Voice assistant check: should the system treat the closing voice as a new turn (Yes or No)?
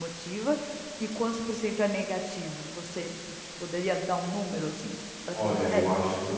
Yes